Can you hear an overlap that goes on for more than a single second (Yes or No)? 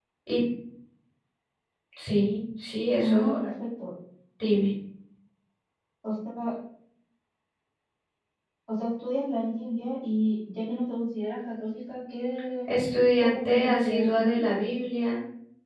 Yes